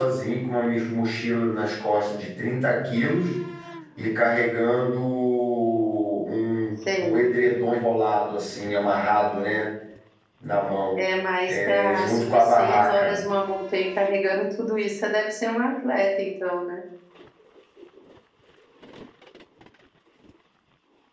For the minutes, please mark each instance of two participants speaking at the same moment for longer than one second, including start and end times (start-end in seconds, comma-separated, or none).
11.5-13.2